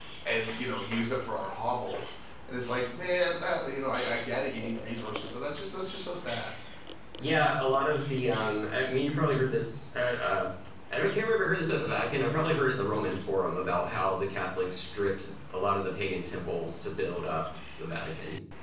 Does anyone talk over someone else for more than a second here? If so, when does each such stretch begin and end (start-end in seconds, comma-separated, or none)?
none